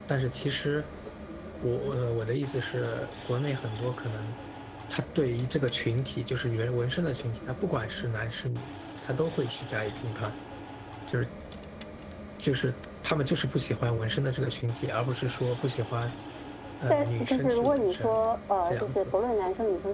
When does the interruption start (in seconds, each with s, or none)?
16.9 s